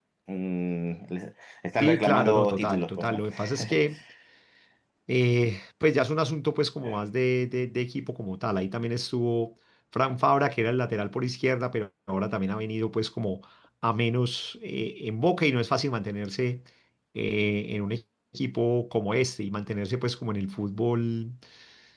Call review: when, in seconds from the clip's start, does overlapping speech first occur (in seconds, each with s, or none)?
1.8 s